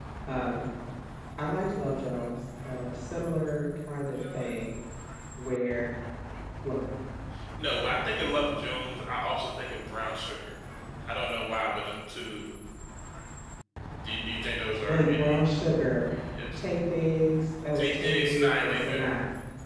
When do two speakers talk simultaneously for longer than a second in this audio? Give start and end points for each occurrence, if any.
17.8-19.1

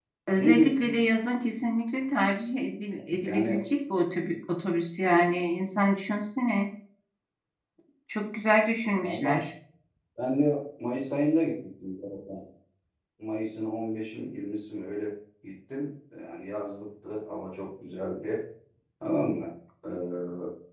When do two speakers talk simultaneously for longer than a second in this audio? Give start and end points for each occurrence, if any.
none

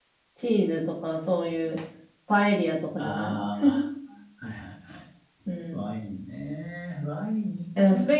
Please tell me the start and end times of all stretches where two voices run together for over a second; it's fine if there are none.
none

